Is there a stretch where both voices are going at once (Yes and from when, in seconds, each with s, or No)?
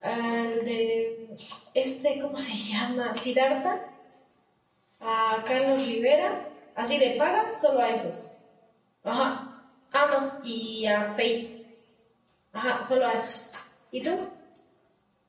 No